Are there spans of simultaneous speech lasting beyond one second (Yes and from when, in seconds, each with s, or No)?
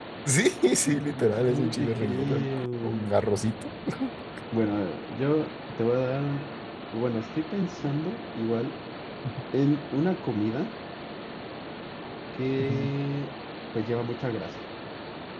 Yes, from 1.4 s